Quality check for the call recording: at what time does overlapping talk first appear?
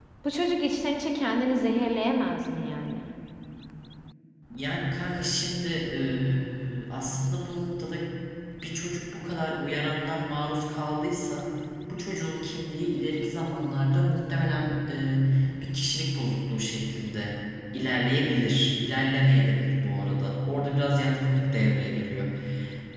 none

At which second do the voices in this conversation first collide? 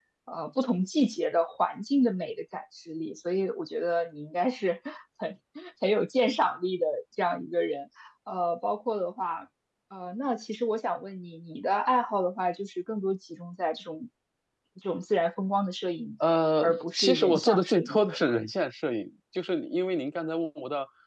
16.6 s

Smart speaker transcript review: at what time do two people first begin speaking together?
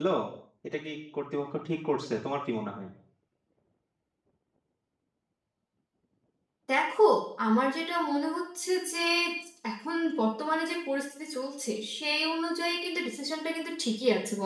none

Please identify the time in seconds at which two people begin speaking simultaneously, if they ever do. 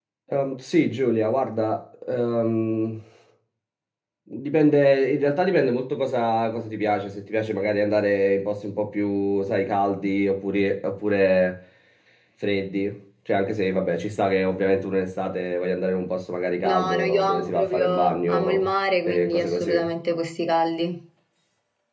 16.6 s

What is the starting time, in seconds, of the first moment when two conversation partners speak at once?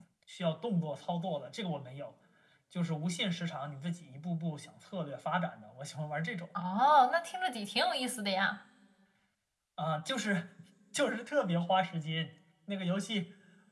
none

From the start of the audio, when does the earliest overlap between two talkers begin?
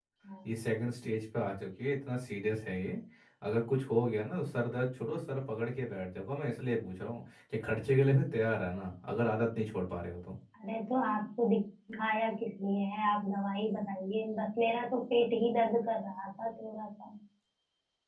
none

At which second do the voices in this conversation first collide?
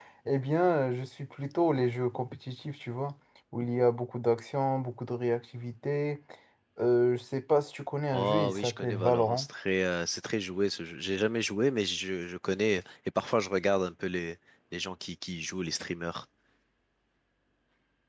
8.1 s

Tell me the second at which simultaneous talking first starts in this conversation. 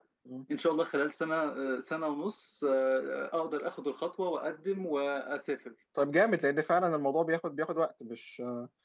none

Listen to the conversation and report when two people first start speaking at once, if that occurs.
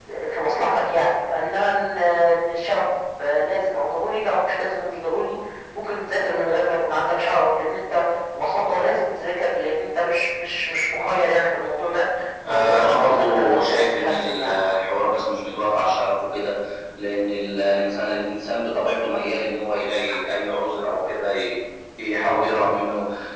12.4 s

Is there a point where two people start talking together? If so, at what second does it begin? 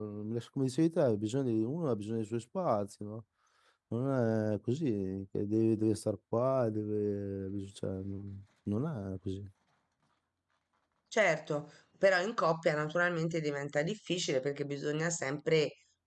none

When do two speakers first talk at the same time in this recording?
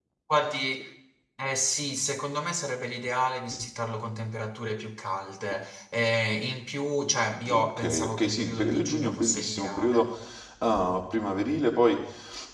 7.4 s

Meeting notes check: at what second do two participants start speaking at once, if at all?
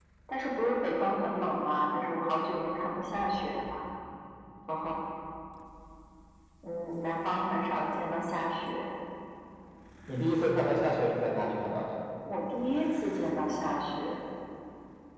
none

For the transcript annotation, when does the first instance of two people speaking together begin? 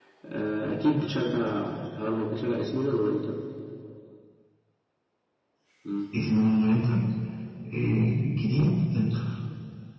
none

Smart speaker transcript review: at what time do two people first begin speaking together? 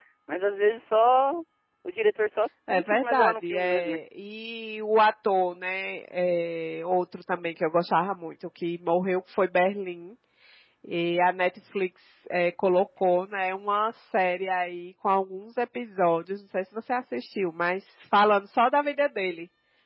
2.7 s

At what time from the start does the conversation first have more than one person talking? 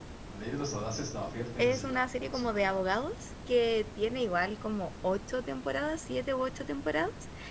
1.6 s

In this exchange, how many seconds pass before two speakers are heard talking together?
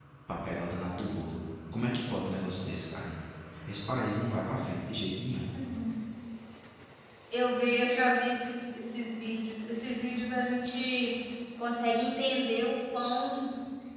none

